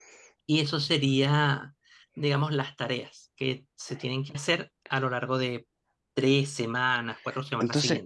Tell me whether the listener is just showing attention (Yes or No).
No